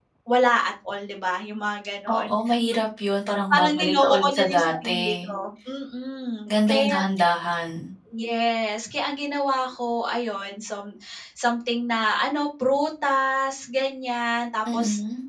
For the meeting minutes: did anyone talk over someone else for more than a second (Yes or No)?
Yes